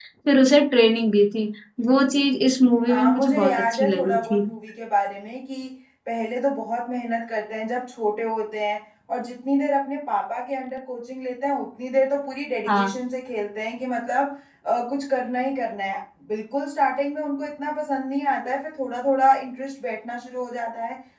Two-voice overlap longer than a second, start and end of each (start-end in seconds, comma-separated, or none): 2.9-4.4